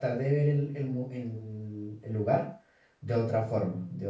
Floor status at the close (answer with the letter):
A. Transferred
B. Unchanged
A